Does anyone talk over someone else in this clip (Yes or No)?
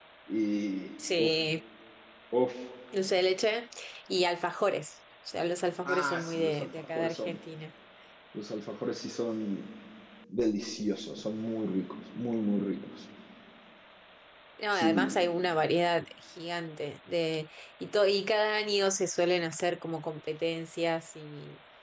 Yes